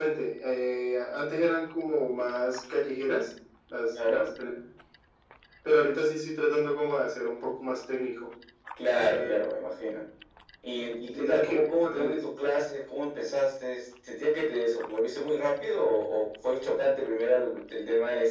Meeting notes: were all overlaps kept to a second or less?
No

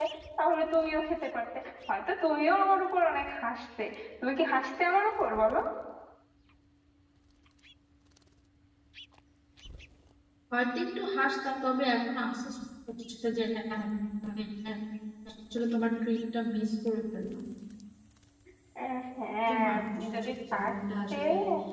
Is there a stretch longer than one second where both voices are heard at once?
Yes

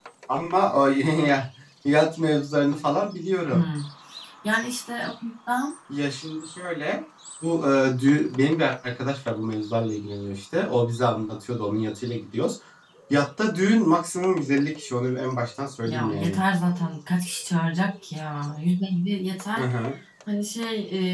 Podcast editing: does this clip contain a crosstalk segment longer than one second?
No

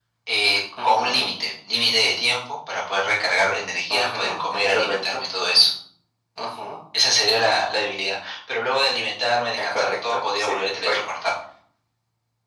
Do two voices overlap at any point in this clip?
Yes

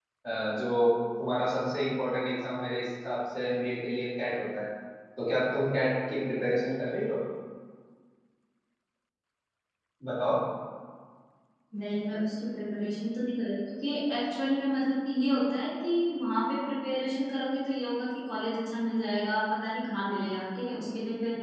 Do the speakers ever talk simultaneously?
No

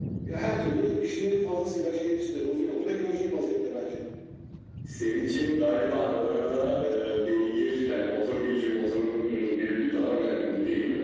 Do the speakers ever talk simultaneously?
No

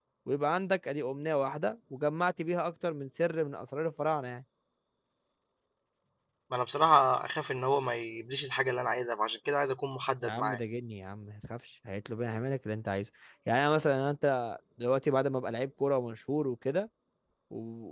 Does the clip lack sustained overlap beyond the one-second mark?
Yes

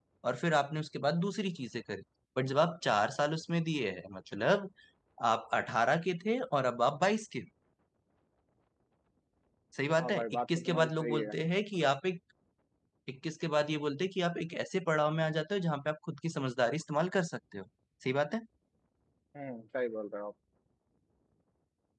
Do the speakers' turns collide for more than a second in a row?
Yes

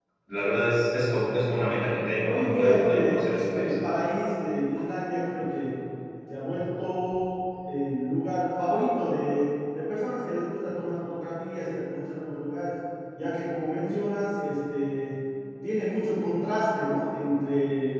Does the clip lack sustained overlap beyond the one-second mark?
No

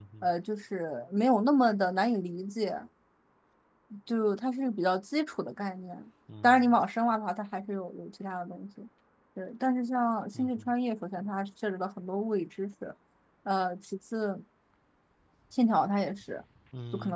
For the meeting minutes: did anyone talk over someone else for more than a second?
No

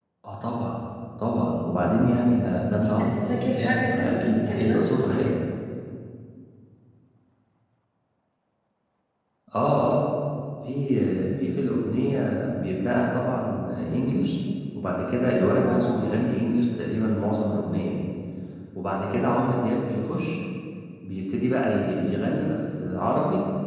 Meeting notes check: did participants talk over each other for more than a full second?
Yes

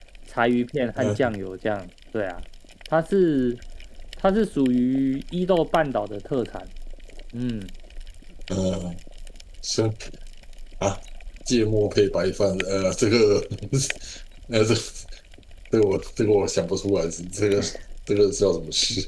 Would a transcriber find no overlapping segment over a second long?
Yes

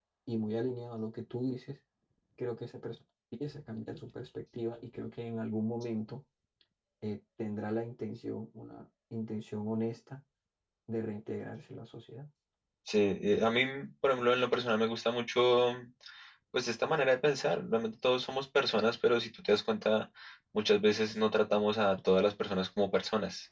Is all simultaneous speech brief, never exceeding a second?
Yes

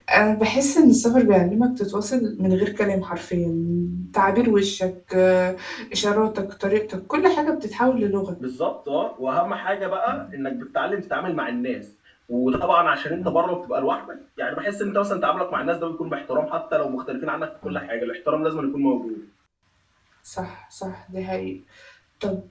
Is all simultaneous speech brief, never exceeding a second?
Yes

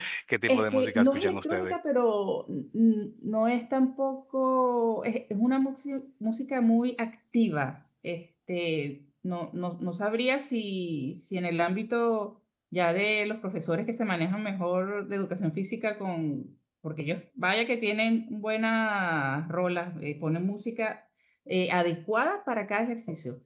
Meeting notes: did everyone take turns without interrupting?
No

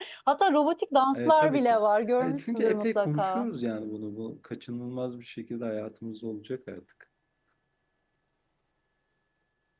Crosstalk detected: Yes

